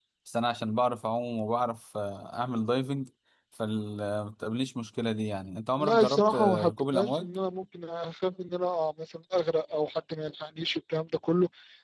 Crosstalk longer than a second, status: present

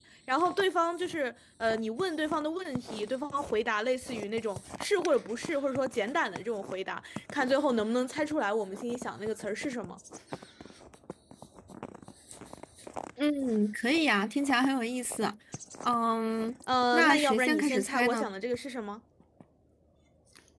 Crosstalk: present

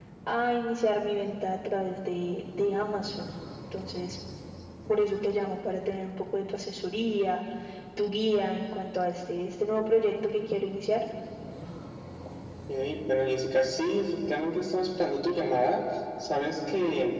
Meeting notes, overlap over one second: none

